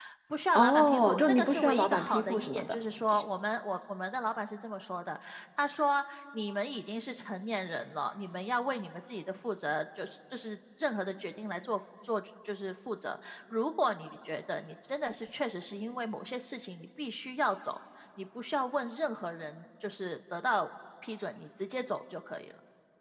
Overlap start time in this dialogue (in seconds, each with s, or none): 0.5 s